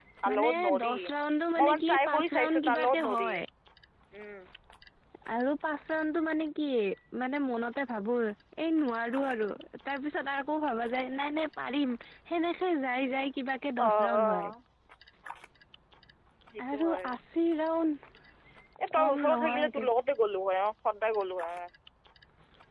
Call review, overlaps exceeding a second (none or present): present